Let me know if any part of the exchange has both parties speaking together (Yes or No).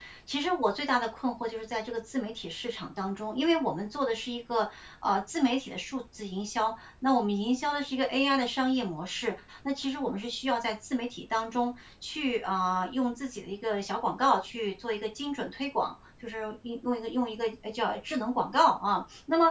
No